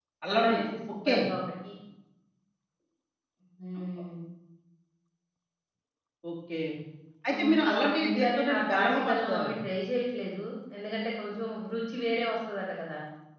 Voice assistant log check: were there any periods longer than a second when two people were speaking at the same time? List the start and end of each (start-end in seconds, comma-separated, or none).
7.3-9.6